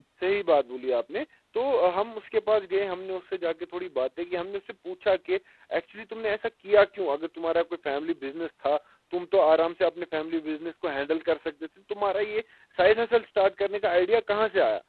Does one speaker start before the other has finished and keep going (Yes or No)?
No